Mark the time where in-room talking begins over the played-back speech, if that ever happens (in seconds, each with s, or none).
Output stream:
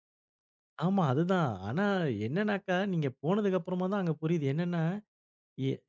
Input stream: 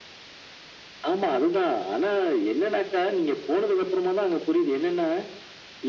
none